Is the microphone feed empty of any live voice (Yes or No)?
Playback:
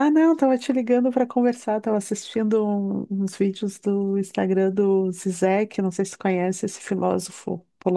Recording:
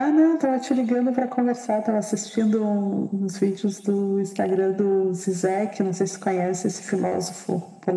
Yes